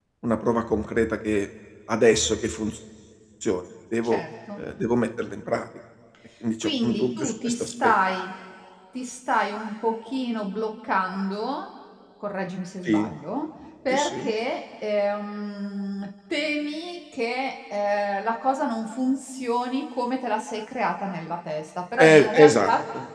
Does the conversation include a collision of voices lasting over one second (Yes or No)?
Yes